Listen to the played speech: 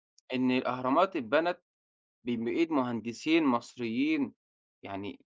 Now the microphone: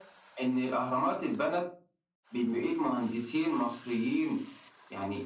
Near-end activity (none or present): none